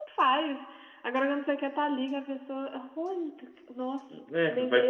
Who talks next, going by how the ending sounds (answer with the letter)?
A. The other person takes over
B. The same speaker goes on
A